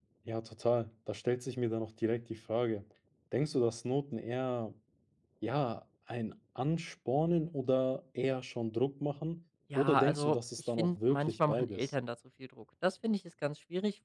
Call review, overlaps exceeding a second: present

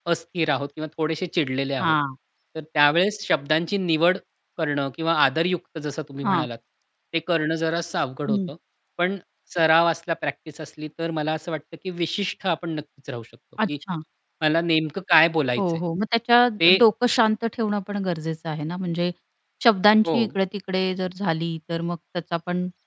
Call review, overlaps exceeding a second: none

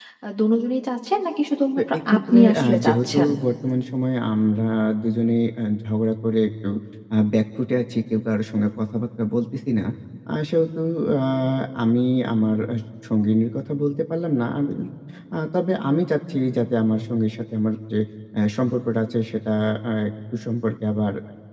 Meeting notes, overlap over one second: present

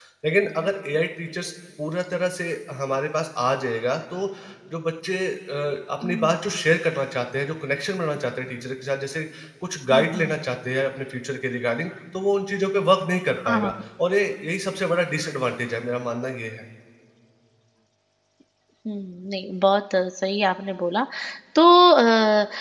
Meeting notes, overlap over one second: none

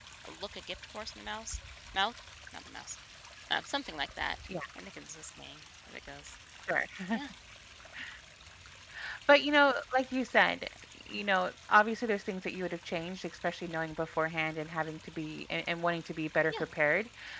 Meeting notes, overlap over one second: none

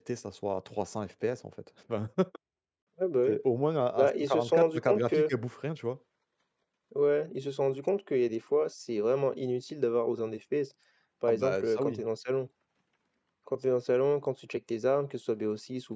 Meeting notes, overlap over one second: present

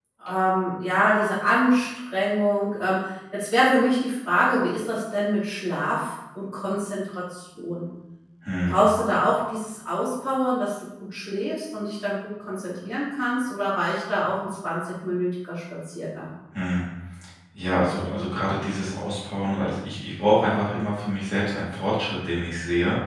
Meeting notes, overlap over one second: none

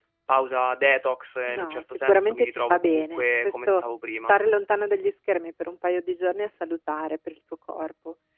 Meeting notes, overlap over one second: present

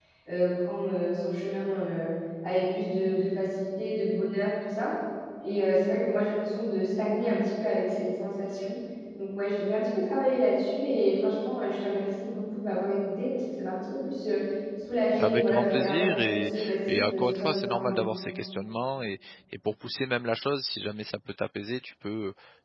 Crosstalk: present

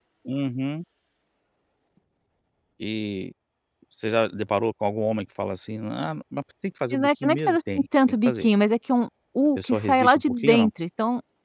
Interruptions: present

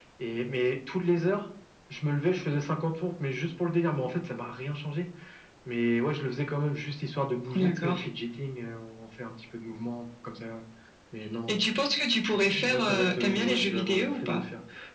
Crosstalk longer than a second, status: present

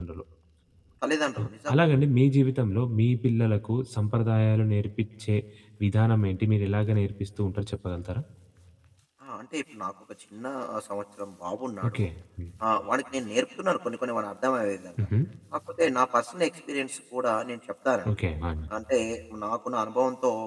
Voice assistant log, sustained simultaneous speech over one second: none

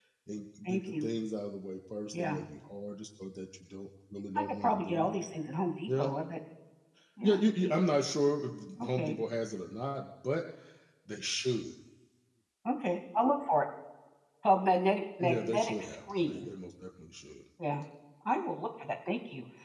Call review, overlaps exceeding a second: present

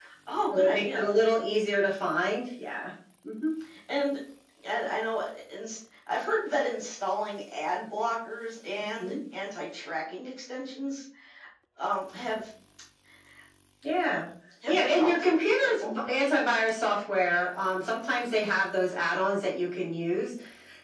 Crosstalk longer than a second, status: present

